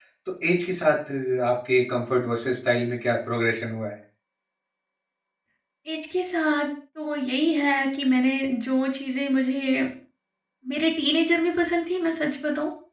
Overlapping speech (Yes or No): No